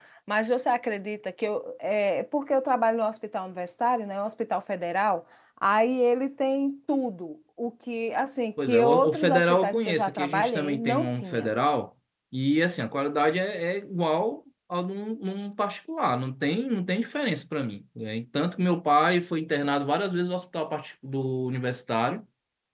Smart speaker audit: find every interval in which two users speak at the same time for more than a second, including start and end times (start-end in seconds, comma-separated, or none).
8.7-11.5